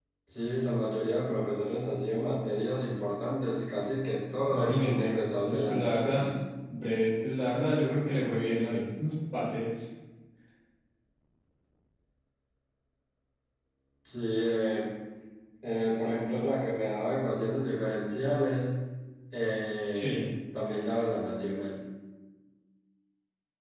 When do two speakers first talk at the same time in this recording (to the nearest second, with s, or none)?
4 s